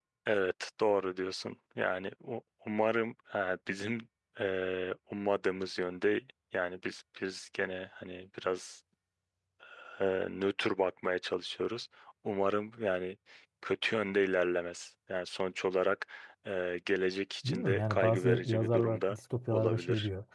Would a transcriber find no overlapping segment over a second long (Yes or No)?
No